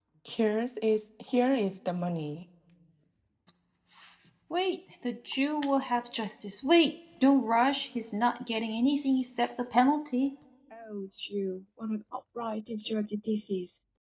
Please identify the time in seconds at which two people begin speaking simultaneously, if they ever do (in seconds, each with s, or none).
none